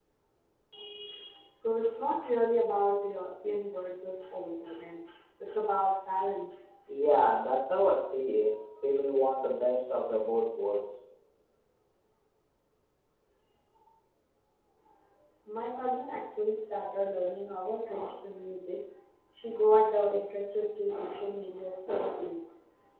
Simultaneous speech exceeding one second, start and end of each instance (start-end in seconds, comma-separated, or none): none